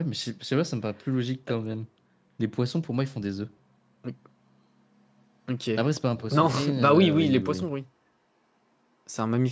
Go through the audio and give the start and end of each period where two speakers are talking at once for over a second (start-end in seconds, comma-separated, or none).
6.3-7.7